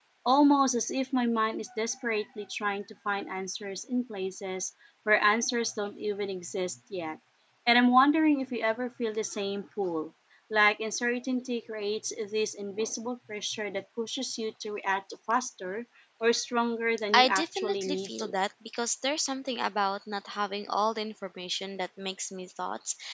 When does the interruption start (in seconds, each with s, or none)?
17.1 s